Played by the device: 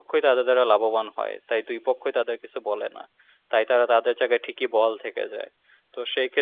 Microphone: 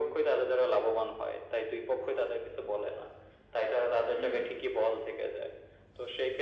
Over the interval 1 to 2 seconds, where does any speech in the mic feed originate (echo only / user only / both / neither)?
echo only